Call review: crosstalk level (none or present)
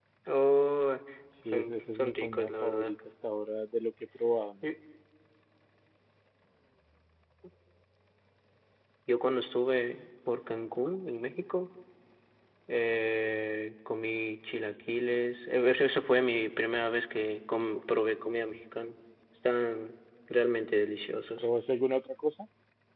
present